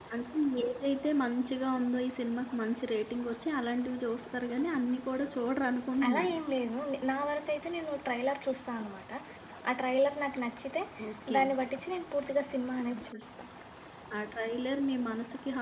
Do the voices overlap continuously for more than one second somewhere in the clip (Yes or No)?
No